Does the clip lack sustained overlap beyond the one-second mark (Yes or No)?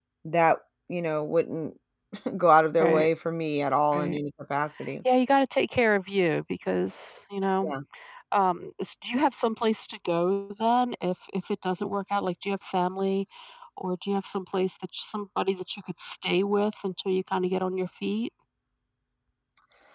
Yes